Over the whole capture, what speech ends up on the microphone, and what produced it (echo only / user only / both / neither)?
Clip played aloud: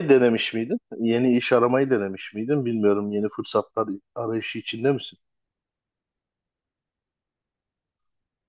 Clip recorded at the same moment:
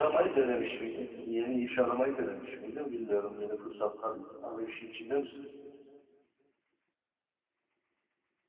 echo only